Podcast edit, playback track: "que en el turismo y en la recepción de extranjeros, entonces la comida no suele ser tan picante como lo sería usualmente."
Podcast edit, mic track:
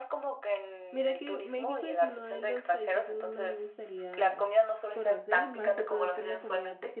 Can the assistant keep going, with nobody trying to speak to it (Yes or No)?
No